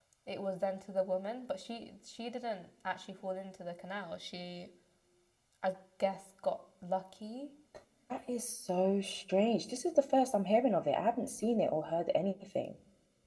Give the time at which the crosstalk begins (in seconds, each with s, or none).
none